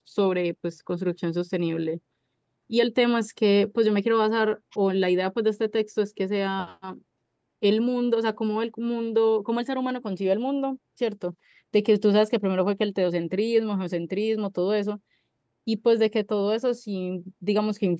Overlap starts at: none

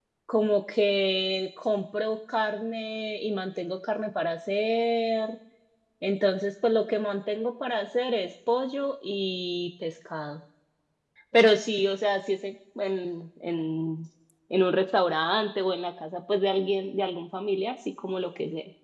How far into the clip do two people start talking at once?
none

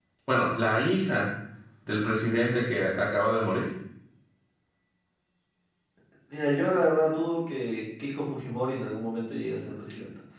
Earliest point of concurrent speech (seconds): none

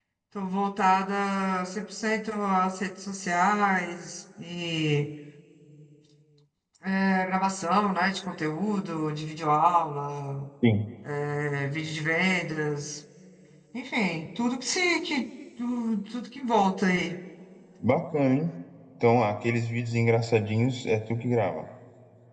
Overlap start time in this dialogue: none

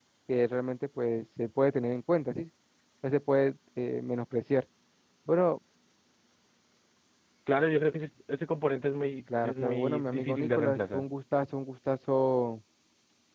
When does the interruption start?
9.3 s

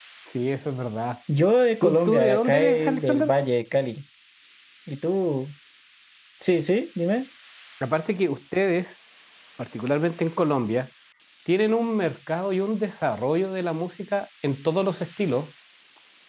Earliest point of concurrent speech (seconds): 1.8 s

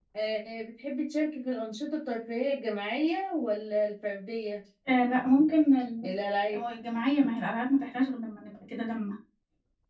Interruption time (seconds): none

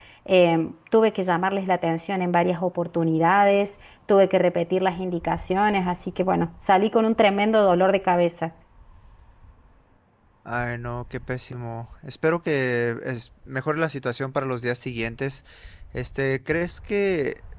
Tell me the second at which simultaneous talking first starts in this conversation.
none

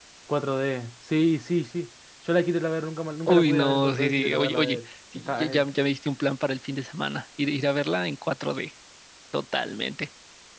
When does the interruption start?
3.3 s

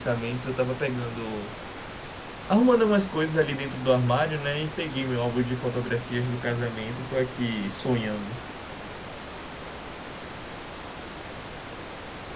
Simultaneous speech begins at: none

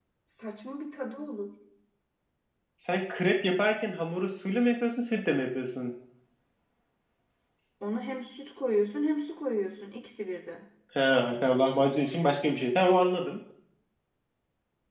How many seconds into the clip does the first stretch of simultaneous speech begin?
none

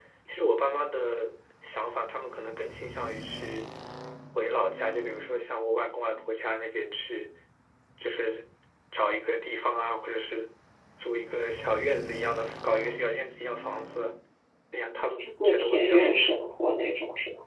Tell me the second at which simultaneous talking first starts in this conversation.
15.2 s

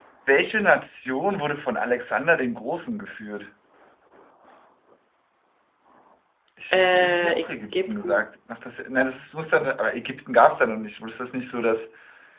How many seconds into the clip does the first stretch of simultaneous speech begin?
6.7 s

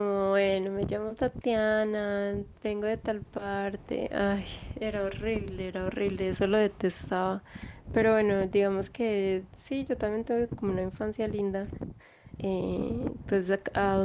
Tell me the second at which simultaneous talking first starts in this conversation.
none

